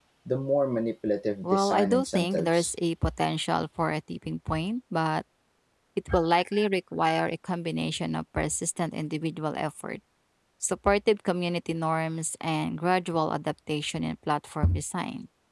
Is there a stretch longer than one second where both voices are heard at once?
Yes, from 1.4 s

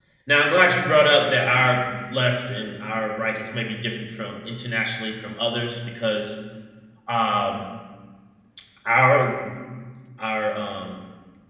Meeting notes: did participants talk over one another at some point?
No

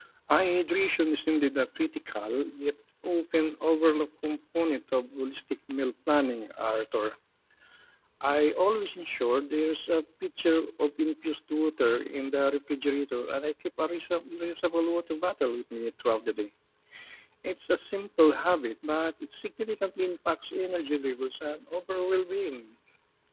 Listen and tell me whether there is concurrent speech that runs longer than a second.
No

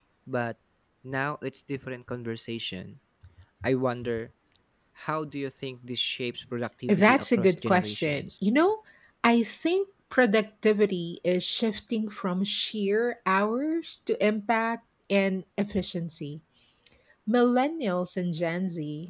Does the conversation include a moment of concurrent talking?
Yes, from 6.9 s

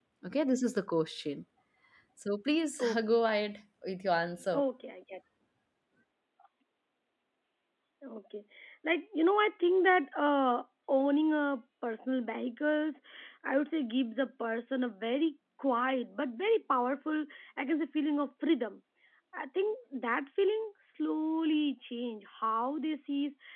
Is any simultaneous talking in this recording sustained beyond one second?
No

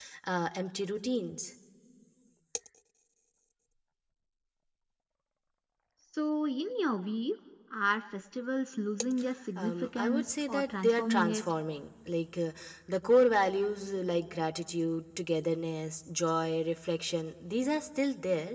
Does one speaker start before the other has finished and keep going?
Yes, from 9.6 s

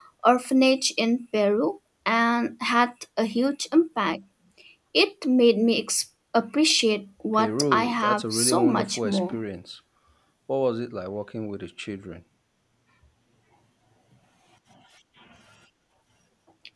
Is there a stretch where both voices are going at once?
Yes, from 7.3 s

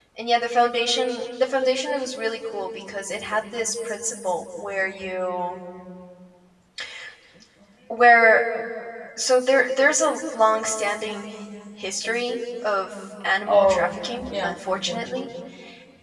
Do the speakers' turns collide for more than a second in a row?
Yes, from 13.5 s

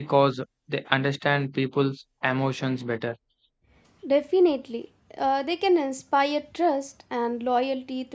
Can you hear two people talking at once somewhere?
No

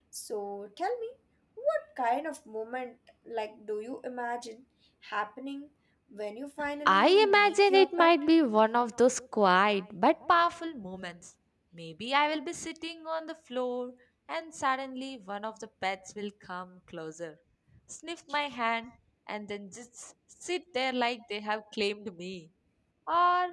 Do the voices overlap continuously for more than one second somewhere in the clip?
Yes, from 6.8 s

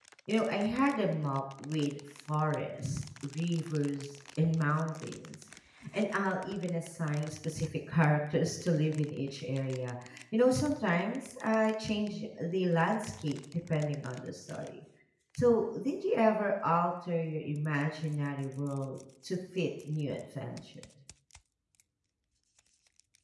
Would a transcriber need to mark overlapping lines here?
No

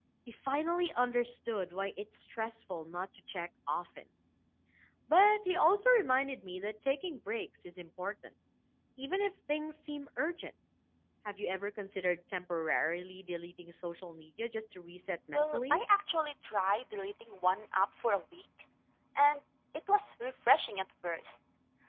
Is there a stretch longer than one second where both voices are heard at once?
No

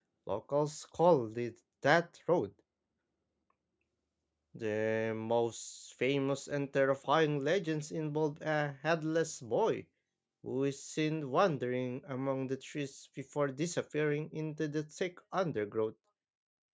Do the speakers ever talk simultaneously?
No

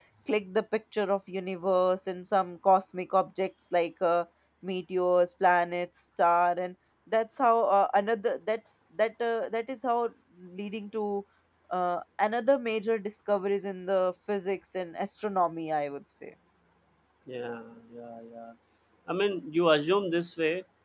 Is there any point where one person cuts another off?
No

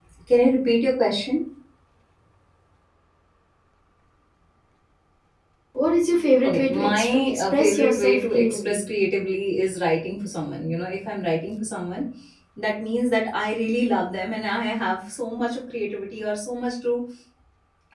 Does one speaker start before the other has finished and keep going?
Yes, from 6.4 s

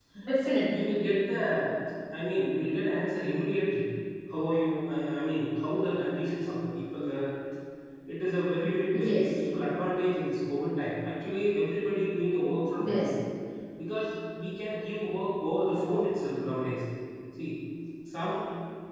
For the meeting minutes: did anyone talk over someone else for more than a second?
No

